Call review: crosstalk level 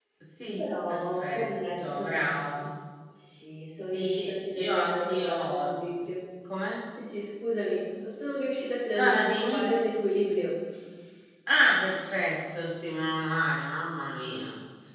present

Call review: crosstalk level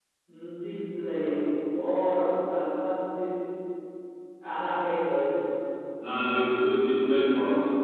none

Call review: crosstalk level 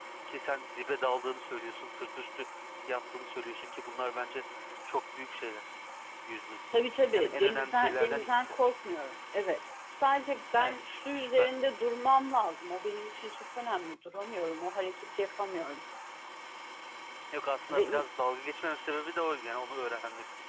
present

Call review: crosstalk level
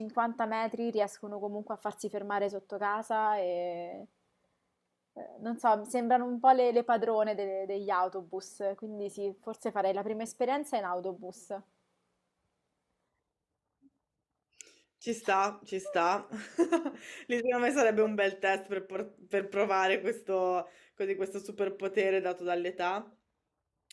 none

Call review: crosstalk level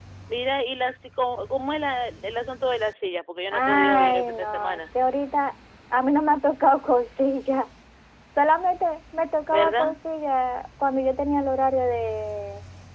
present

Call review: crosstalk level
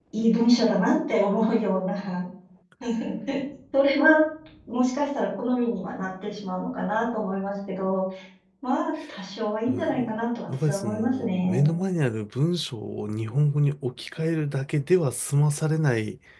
present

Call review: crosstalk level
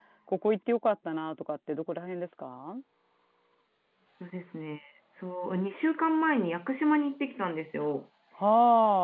none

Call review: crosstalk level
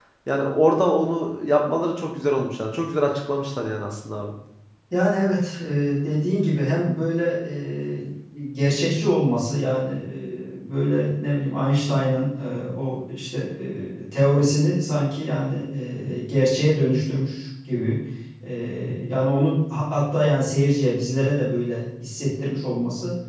none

